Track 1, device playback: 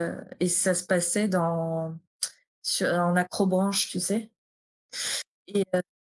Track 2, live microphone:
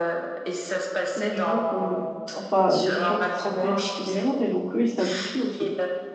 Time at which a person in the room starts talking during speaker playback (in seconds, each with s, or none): 1.0 s